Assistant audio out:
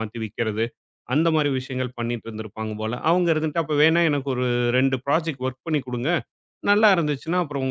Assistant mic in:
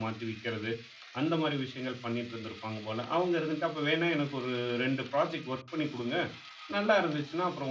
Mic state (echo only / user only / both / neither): echo only